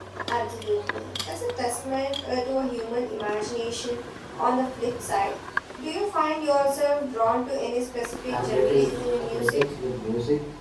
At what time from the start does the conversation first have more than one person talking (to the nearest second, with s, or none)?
8 s